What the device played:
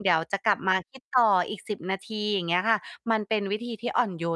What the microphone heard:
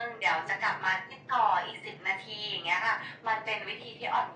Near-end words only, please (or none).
none